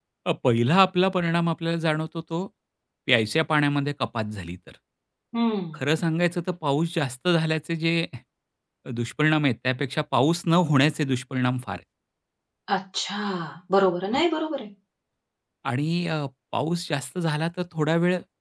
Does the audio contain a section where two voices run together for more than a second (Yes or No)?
No